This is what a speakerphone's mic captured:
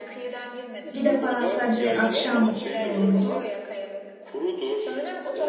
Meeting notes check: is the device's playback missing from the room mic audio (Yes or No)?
No